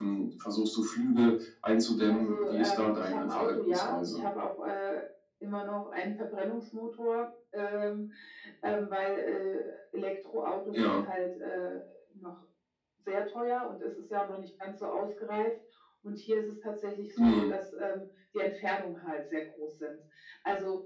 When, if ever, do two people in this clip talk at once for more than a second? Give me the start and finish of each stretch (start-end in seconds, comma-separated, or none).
2.1-4.2